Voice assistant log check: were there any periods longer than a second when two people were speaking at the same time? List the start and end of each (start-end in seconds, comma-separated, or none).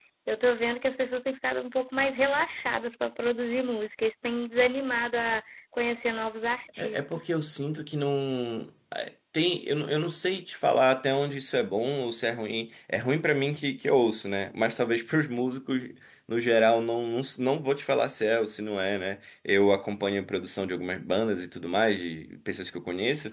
none